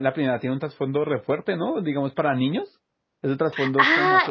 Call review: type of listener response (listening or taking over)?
taking over